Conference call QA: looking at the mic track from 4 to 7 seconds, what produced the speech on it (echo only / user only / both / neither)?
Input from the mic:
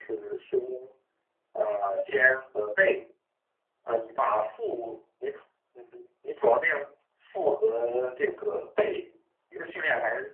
echo only